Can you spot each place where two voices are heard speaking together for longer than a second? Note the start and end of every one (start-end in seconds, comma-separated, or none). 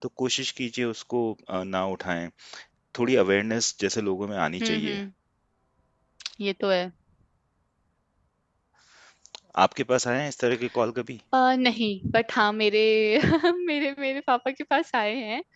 none